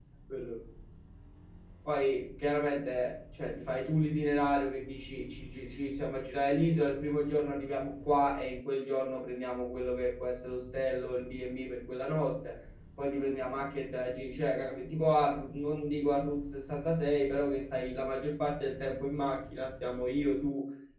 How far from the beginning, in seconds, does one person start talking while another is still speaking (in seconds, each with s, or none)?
none